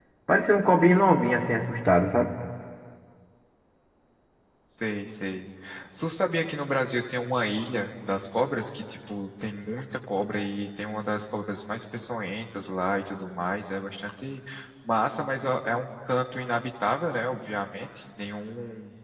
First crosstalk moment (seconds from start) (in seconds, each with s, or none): none